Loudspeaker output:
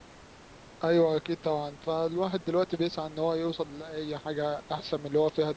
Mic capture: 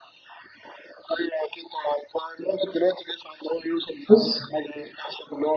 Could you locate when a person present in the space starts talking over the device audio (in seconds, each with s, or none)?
4.1 s